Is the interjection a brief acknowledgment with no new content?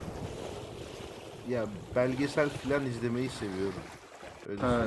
No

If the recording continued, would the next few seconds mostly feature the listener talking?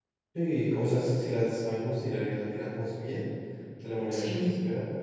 No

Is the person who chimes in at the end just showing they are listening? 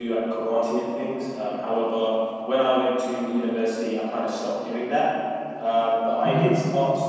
Yes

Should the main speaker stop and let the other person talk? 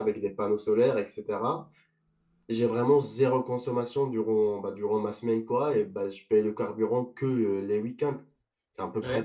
Yes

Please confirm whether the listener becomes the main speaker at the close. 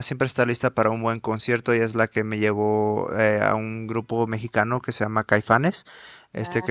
No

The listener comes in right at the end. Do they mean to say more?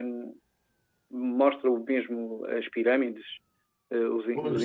No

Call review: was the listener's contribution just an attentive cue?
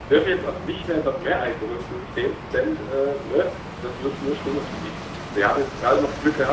Yes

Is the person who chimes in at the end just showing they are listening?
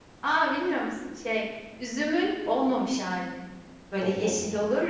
Yes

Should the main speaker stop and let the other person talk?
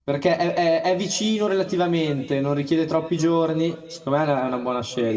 Yes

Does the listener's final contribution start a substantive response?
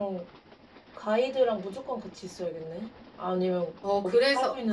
Yes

